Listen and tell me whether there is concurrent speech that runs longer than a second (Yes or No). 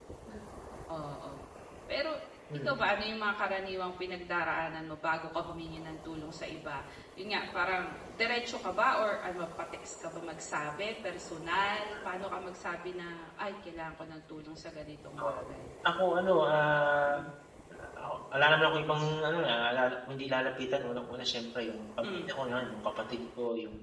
No